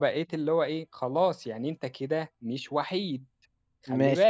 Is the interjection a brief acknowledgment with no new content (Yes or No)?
No